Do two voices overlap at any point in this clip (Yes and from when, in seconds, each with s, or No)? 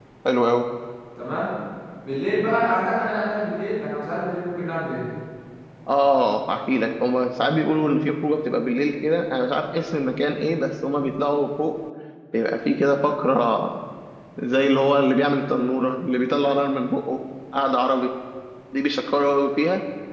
No